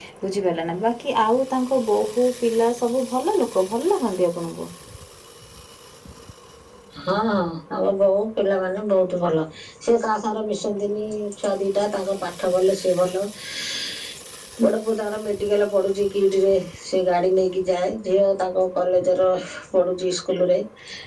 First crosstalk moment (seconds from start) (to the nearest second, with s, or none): none